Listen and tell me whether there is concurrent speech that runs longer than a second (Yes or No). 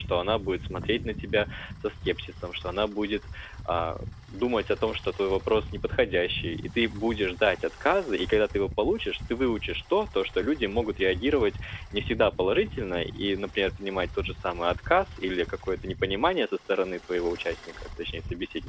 No